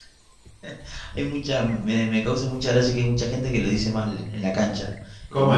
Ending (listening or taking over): listening